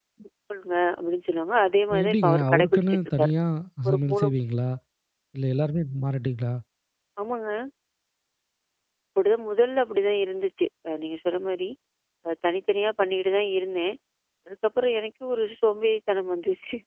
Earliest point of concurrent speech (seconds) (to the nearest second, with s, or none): 2 s